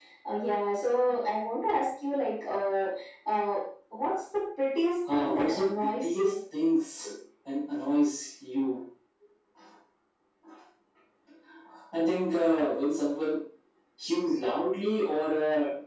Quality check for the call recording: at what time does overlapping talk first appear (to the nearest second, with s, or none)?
5 s